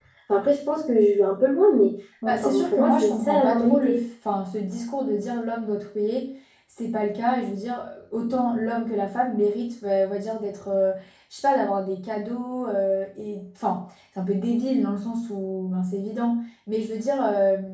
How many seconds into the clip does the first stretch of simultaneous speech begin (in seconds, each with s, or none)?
2.2 s